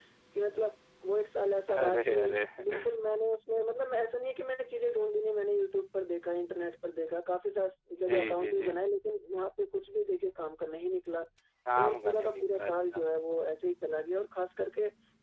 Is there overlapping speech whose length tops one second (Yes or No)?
Yes